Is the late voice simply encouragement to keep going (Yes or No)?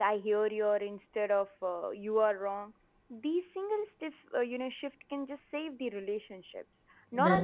Yes